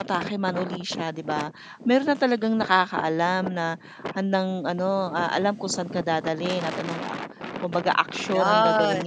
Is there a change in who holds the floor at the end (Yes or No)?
No